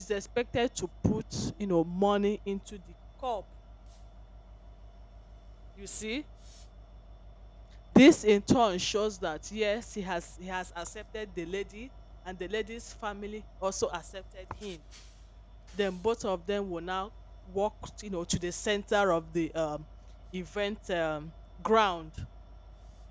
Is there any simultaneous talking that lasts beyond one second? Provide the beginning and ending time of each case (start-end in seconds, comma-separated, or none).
none